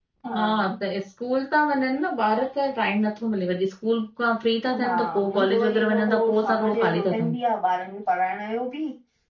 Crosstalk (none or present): present